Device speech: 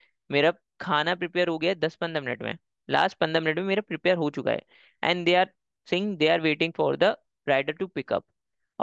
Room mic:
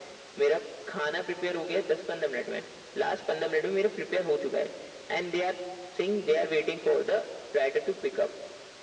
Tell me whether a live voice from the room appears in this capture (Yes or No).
No